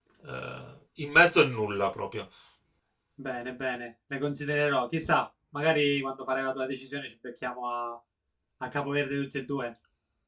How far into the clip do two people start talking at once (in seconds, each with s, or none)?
none